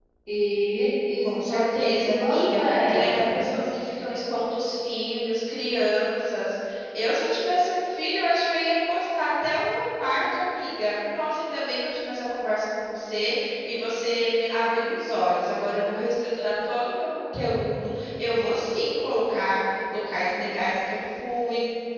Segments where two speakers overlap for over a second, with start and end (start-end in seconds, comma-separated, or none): 1.2-3.5